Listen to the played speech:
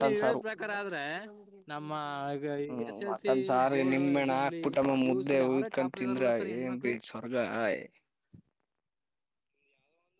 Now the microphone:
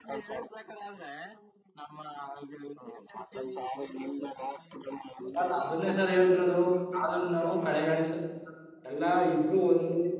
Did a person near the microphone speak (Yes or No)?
Yes